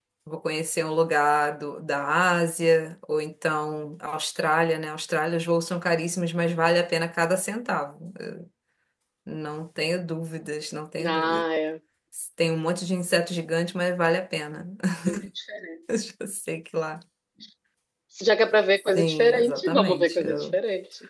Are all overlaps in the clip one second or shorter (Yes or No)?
No